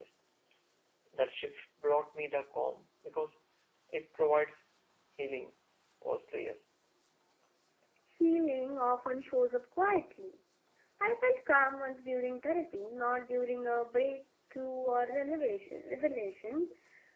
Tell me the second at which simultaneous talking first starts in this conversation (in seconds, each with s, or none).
none